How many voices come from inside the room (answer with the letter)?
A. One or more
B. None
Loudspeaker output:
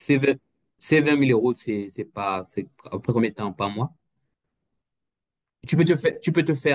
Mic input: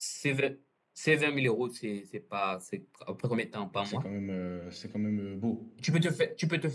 A